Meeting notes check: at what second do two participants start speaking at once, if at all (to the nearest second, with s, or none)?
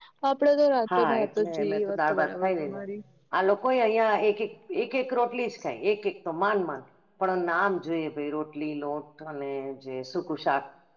1 s